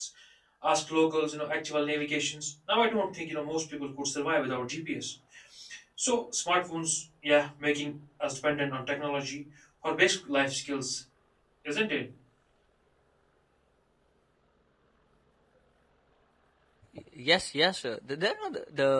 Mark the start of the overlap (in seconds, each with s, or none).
none